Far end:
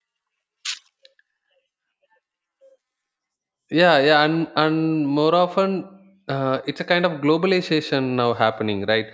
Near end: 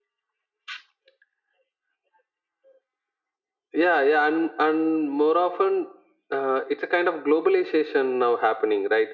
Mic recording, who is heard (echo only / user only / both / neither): echo only